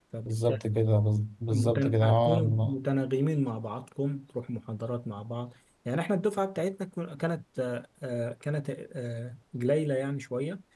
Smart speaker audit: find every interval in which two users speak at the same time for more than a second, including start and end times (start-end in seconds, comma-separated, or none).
1.5-2.8